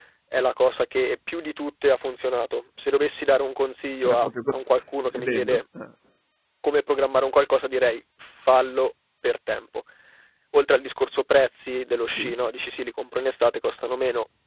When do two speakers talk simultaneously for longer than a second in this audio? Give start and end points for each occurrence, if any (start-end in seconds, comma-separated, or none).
none